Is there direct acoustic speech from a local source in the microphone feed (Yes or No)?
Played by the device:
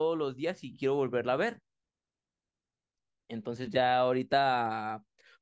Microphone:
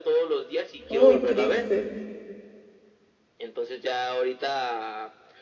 Yes